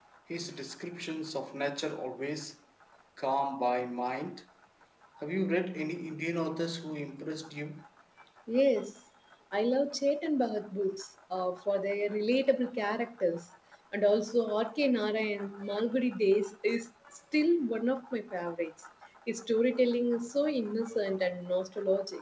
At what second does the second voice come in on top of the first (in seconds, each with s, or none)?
none